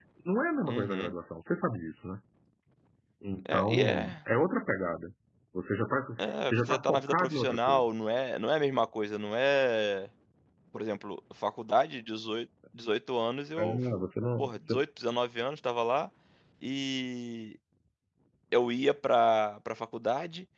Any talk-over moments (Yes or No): Yes